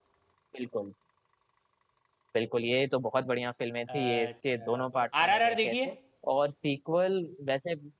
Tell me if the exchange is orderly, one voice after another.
No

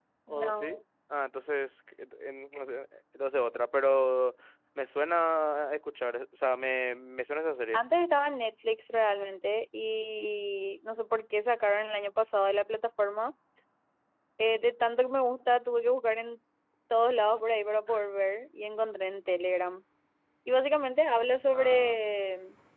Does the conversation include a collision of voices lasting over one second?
No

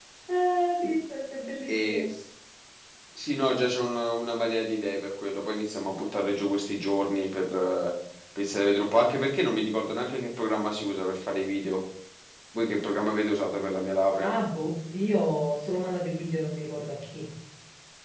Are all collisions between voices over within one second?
Yes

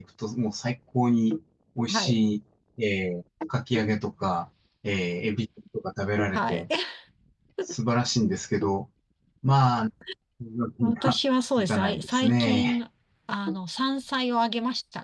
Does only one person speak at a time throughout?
No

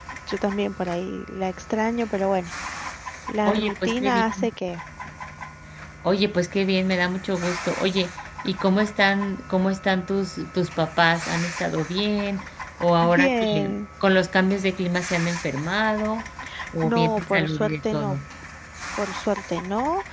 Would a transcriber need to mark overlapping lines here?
Yes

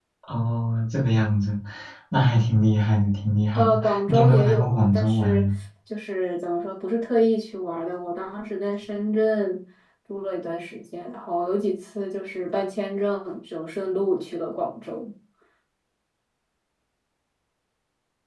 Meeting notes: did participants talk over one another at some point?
Yes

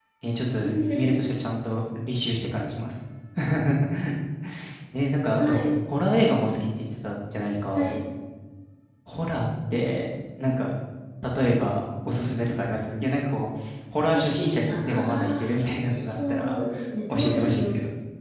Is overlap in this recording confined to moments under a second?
No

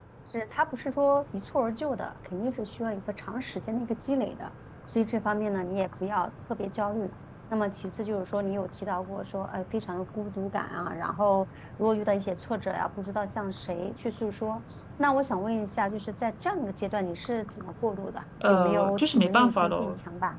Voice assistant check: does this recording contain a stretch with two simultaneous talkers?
Yes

